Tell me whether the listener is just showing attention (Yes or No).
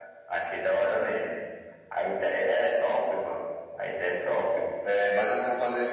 No